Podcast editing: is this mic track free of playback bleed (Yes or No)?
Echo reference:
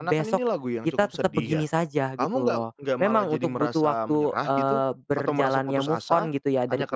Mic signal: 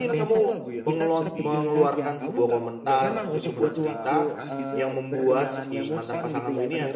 No